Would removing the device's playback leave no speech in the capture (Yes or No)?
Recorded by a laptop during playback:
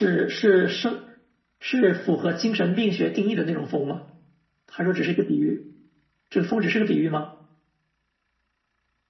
Yes